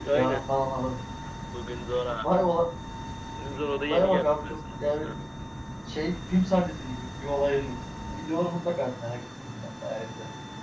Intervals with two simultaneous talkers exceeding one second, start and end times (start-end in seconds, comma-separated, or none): 3.8-5.1